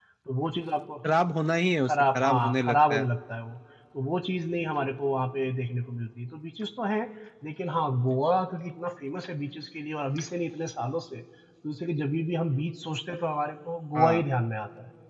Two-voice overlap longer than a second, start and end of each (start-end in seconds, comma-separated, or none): 1.8-3.0